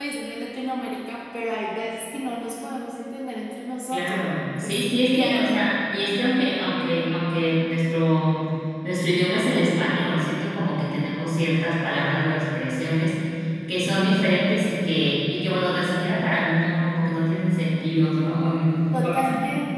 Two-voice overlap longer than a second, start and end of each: 3.9-5.3

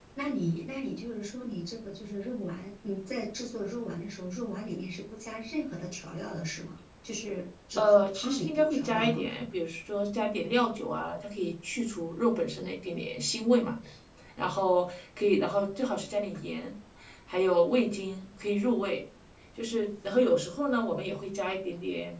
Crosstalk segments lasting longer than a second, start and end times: 7.8-9.2

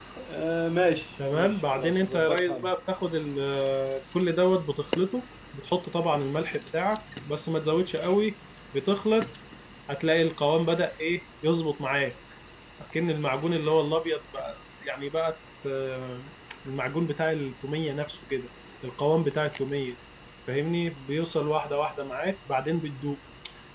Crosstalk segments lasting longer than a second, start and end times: 1.3-2.7

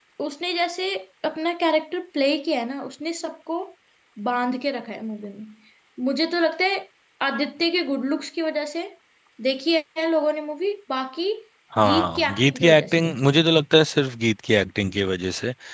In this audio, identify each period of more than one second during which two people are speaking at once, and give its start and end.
11.8-13.3

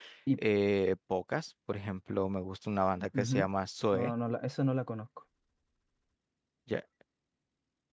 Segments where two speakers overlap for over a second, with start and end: none

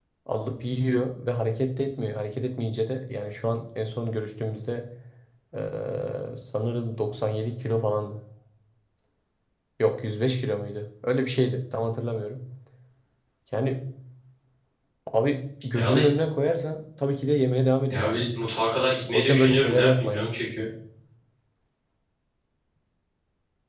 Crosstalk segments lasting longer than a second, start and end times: 19.1-20.3

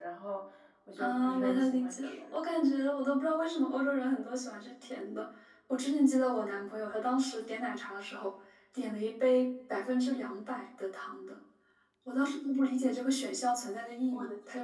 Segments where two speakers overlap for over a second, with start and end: 1.0-2.3

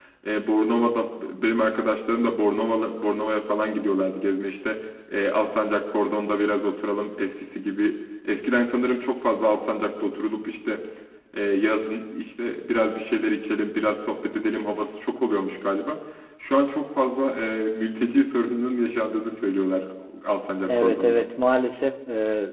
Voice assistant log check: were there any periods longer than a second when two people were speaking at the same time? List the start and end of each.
none

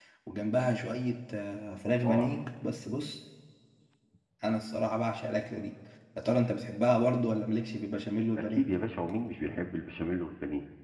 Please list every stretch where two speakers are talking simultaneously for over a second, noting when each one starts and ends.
none

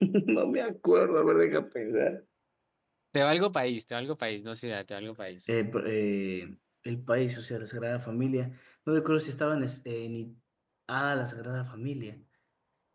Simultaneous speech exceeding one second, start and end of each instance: none

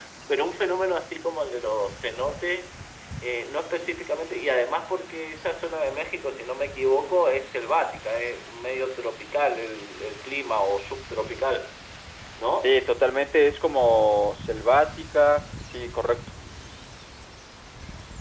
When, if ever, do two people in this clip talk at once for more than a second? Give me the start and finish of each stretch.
none

